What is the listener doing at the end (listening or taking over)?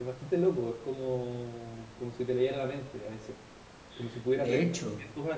listening